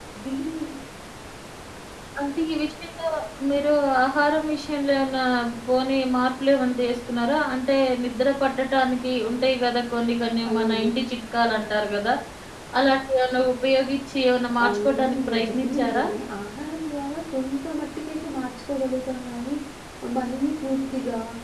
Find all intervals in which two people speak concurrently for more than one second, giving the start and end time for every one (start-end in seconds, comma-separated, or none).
14.7-16.0